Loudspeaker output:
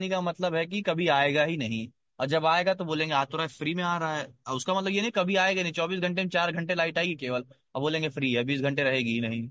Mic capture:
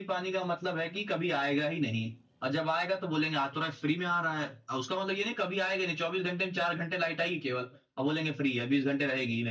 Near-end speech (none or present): none